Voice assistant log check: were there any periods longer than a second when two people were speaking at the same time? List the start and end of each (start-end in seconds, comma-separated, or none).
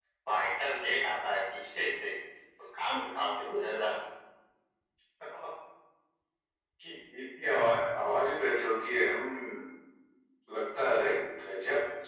none